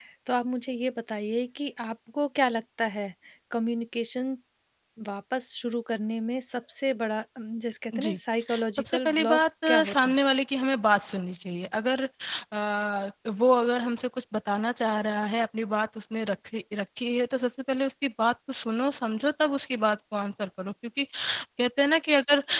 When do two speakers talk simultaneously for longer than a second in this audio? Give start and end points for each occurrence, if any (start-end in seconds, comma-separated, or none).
8.8-10.1